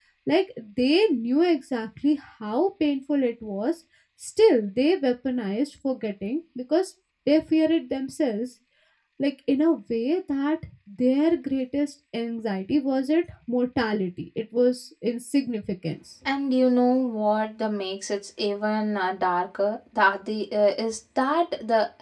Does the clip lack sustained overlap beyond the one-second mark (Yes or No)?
Yes